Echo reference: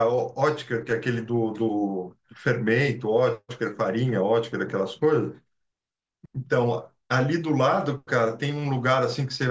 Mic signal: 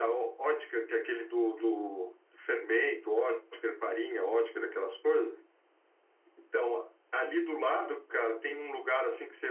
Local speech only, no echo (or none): none